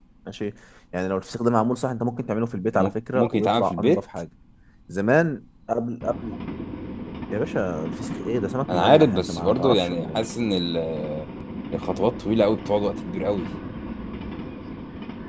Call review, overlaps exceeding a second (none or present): present